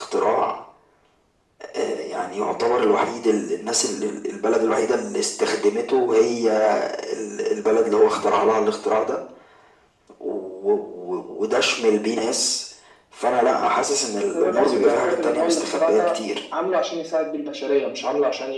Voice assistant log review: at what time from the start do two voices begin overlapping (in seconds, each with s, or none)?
14.3 s